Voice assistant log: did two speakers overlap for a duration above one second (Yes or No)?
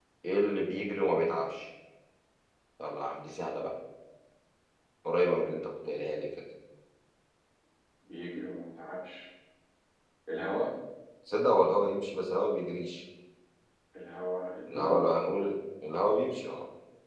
No